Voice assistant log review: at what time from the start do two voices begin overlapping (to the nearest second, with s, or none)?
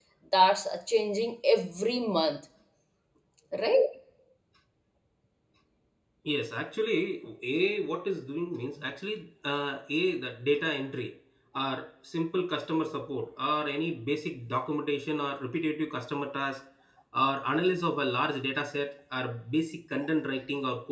none